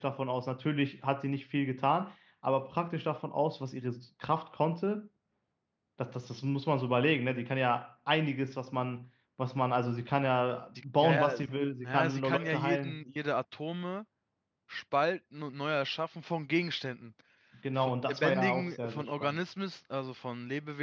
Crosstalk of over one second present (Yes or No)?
Yes